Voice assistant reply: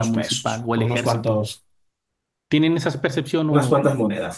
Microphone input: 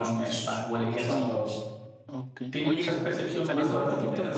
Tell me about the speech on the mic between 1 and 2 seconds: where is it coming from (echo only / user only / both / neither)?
both